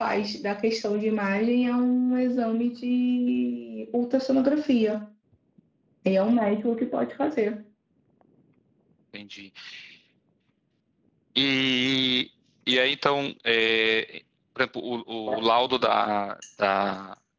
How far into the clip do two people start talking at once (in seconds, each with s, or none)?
none